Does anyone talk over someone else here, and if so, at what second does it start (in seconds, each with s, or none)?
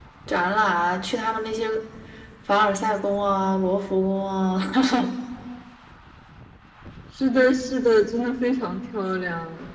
none